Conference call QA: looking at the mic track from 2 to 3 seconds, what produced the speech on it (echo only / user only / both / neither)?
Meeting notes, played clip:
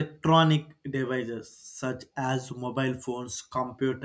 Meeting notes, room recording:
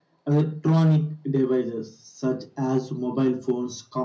echo only